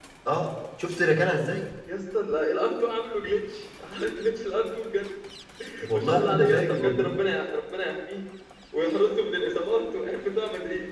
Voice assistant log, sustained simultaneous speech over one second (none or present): present